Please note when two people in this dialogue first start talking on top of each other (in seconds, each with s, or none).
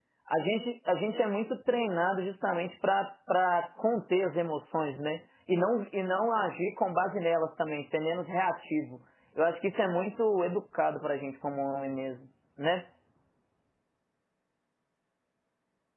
none